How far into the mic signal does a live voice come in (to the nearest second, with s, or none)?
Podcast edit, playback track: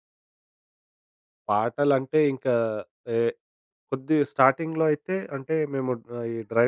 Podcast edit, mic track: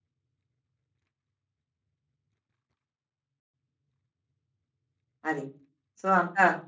5 s